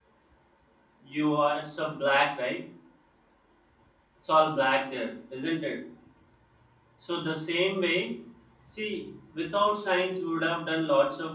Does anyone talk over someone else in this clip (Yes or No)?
No